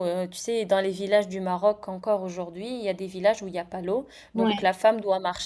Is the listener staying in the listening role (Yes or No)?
Yes